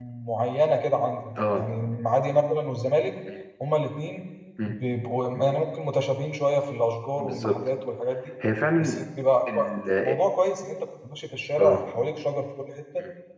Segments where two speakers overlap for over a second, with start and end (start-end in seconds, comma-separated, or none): none